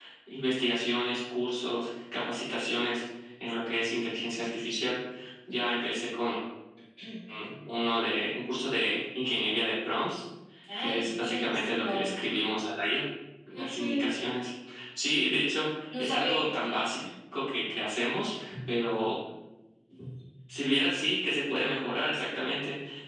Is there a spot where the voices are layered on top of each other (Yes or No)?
Yes